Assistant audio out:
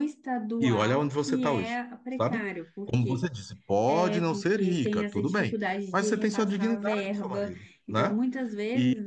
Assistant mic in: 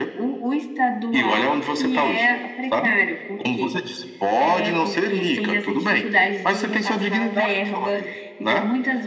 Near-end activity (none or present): none